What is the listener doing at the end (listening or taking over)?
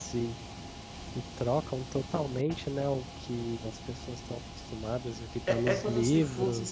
taking over